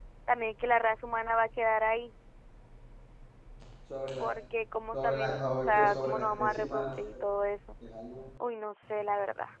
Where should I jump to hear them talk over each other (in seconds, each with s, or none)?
4.9 s